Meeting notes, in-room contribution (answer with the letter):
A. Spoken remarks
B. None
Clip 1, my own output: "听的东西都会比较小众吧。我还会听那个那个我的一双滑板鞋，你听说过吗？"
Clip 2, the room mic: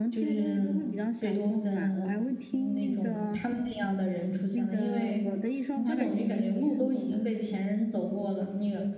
A